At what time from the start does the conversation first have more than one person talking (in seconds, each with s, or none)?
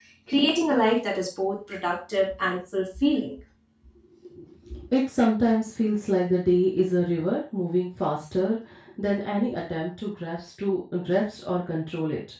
none